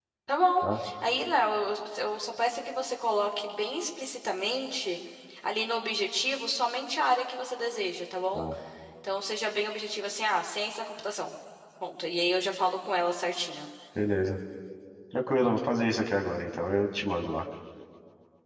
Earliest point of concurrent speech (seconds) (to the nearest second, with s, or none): none